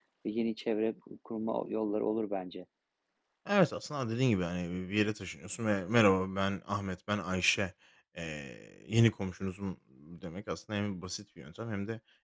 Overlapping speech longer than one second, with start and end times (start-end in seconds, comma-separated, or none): none